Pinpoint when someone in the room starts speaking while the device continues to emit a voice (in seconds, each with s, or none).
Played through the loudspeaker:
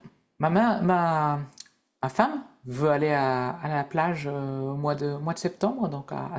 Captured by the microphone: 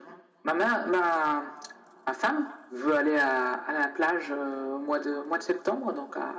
none